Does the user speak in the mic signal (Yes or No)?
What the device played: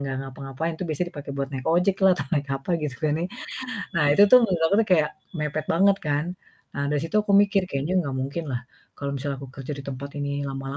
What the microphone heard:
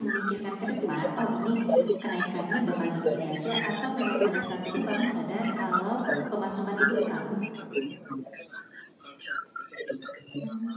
Yes